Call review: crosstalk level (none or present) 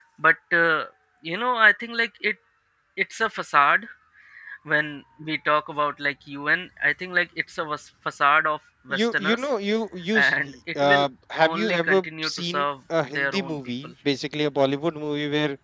present